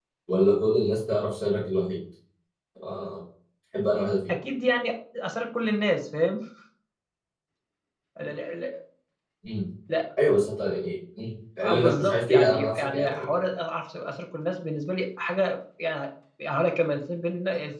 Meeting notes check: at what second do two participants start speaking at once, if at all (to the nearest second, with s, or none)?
12 s